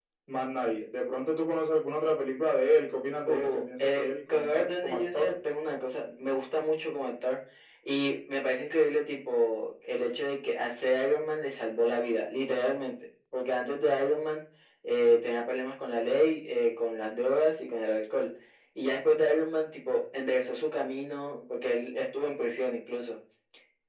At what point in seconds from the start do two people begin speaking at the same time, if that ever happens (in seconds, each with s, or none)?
3.2 s